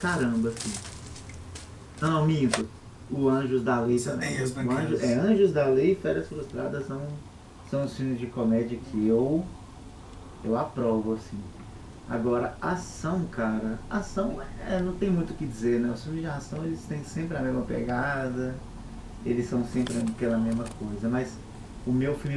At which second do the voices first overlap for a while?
3.8 s

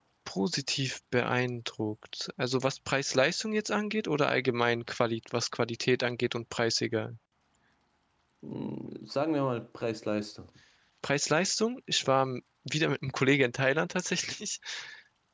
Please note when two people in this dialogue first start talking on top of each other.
none

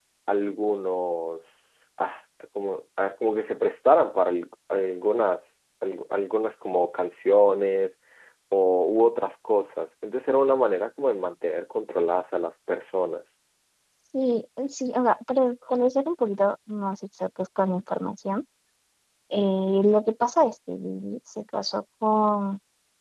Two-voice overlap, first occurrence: none

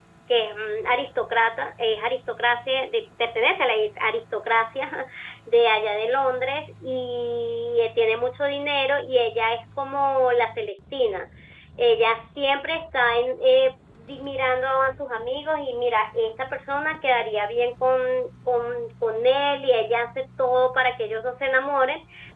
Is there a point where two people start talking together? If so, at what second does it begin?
none

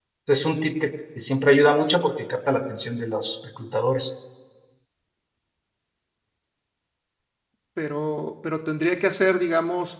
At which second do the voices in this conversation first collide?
none

